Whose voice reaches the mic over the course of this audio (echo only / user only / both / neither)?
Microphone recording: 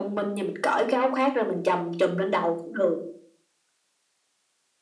echo only